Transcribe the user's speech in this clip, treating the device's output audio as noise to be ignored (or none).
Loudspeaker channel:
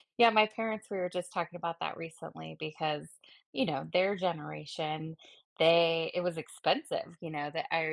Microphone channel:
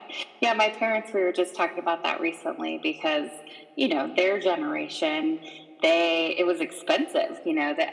none